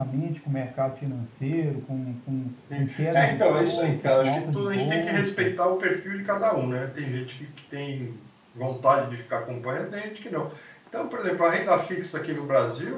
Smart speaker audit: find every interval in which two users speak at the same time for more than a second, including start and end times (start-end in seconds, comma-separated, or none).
2.8-5.5